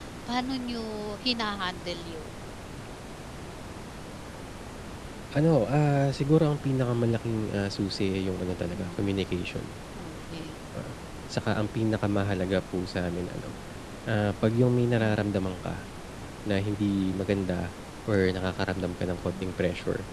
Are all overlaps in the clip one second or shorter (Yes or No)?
Yes